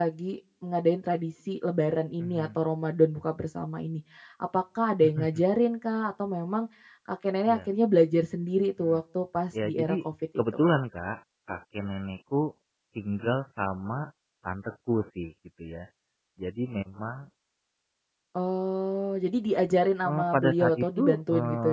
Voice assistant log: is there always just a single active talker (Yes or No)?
No